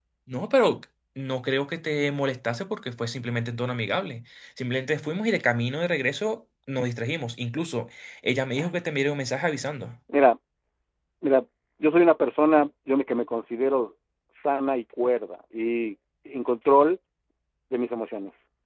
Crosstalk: none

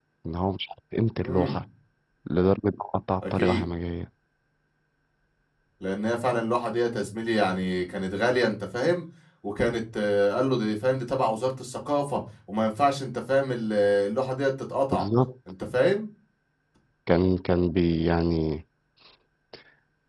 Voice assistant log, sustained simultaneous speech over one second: none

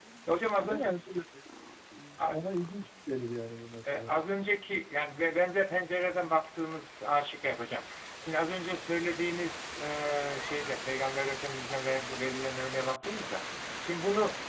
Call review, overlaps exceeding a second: none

